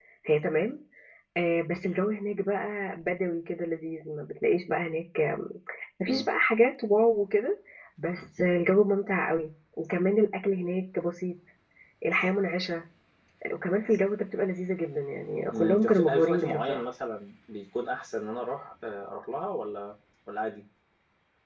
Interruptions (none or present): present